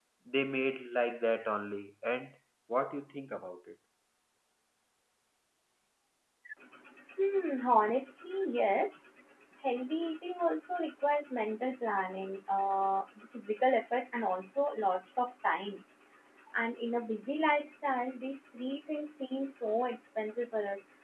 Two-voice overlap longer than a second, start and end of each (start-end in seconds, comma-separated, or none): none